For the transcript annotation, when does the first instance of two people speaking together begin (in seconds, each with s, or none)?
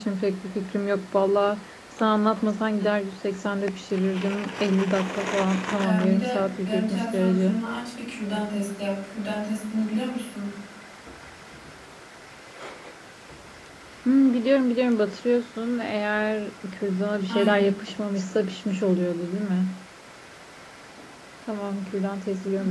5.8 s